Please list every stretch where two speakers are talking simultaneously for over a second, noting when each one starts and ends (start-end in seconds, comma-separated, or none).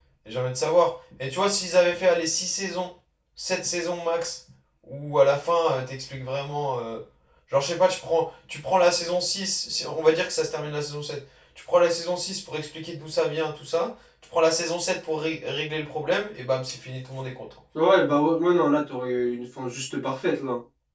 none